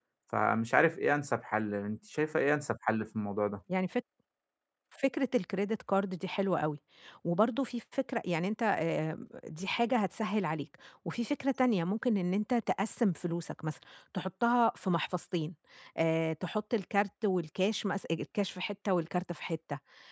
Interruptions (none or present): none